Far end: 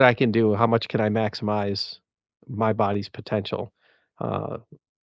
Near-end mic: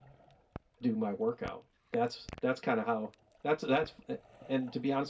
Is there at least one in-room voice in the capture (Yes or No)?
Yes